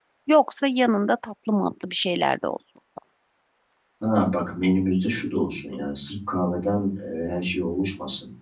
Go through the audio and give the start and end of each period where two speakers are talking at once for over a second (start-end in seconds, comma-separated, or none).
none